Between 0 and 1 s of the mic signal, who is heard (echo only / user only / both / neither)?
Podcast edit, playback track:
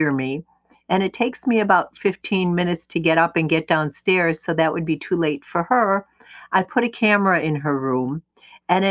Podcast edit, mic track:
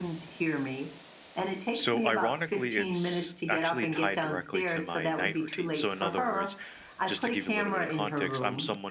echo only